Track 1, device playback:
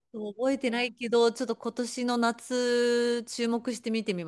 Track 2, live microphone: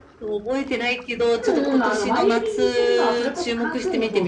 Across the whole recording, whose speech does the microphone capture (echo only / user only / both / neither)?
both